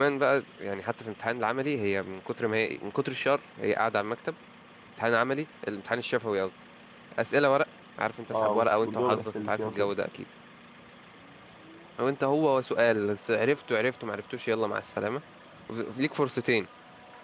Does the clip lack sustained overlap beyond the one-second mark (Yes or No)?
No